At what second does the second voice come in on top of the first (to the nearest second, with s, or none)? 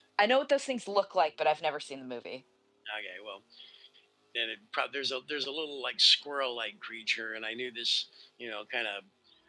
none